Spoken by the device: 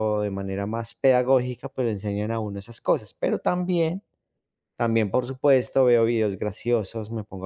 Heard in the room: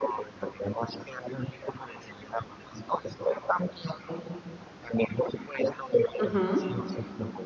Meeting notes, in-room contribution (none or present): present